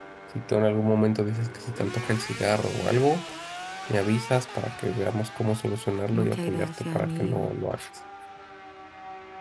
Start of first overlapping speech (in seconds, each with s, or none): 6.1 s